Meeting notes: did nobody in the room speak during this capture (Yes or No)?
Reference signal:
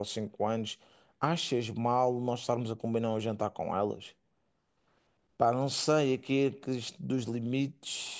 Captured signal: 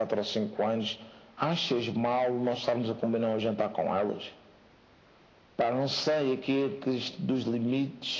Yes